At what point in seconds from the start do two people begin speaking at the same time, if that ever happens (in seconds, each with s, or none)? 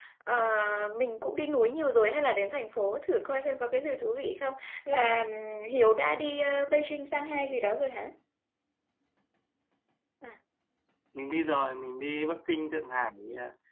none